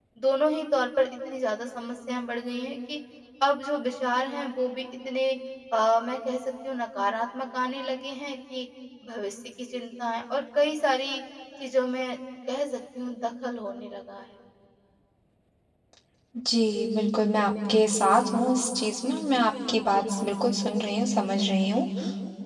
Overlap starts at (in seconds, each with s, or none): none